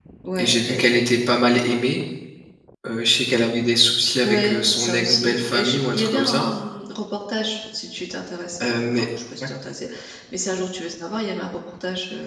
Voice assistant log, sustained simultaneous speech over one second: present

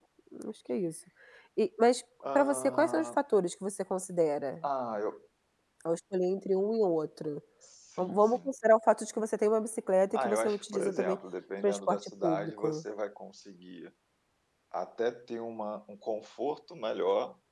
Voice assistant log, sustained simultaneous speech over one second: present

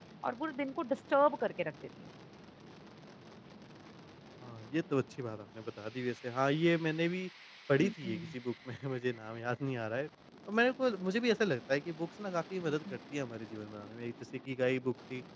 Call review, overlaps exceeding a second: none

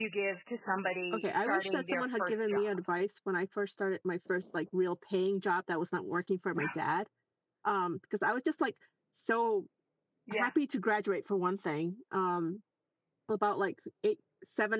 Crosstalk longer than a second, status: present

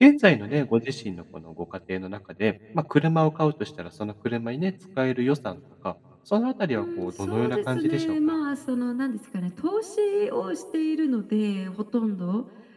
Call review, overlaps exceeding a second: present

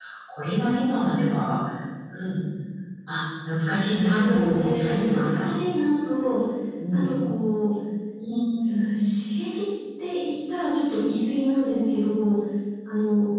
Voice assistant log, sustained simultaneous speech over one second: present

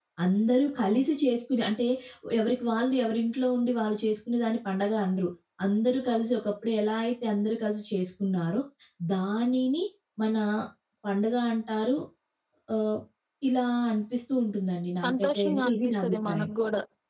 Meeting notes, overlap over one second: present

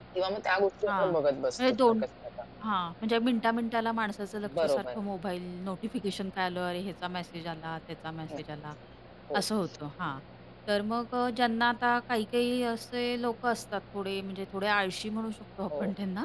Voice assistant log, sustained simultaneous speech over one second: none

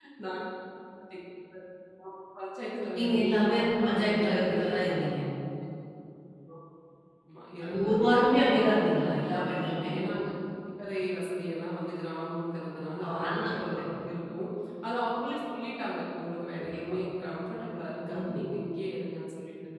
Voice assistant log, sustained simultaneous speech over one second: present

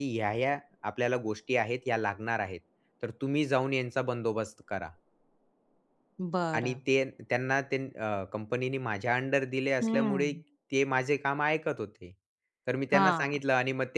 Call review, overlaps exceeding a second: none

